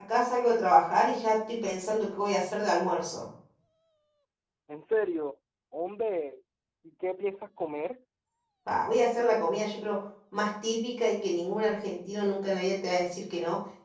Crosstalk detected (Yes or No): No